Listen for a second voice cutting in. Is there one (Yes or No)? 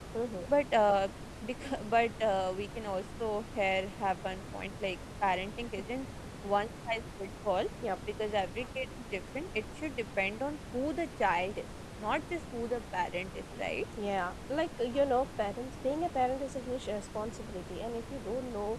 No